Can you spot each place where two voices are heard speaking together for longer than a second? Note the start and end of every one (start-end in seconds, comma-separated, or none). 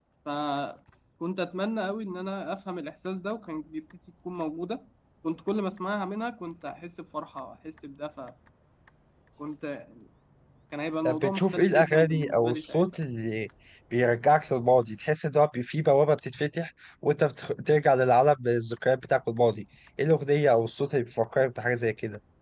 11.1-12.8